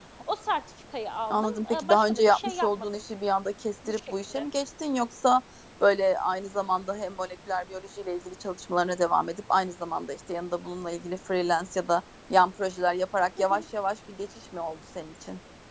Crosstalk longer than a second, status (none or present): present